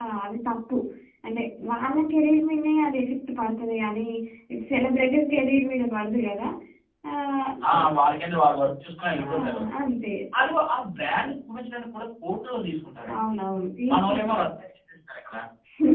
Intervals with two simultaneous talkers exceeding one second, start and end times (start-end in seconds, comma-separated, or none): none